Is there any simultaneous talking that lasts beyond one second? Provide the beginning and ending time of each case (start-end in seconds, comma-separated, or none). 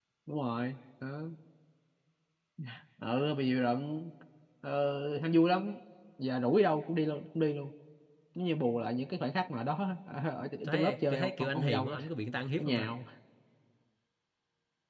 10.7-12.0